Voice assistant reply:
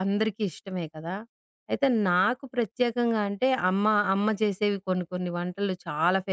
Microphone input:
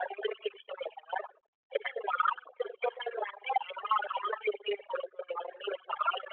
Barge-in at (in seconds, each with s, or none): none